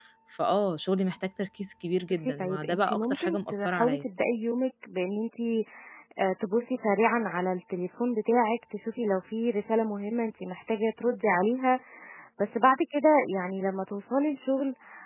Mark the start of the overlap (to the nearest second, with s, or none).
2 s